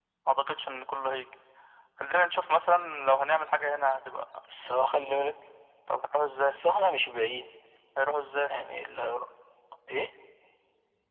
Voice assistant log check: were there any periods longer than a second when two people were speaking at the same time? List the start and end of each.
none

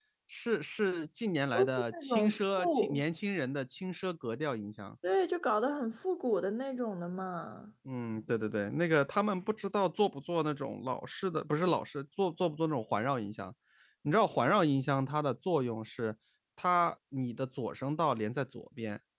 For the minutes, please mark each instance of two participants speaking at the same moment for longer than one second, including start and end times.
1.5-3.0

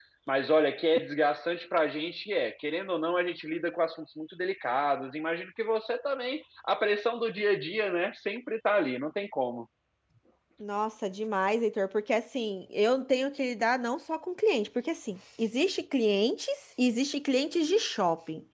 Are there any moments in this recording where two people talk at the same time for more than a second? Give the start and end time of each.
none

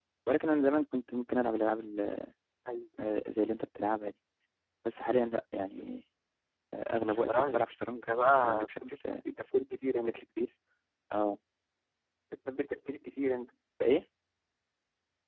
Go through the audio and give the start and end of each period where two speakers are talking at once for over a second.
7.1-8.7

